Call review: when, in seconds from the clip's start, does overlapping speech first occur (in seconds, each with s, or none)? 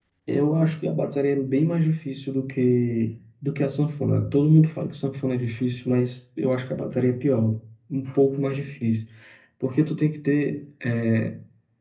none